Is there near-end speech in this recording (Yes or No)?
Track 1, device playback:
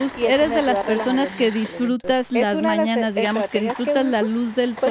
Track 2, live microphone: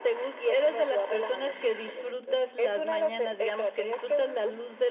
No